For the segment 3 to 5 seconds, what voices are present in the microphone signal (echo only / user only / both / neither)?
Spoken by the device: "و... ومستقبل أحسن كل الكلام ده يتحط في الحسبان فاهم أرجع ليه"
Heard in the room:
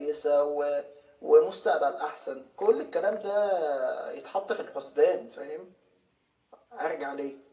echo only